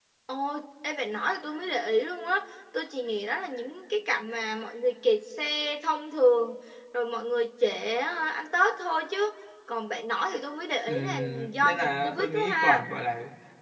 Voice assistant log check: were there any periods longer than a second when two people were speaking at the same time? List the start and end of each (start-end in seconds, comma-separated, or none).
10.9-12.9